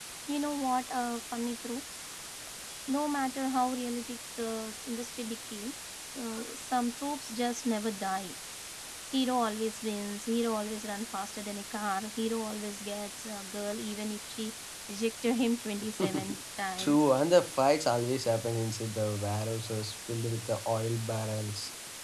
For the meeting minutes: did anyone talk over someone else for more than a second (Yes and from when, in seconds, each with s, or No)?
No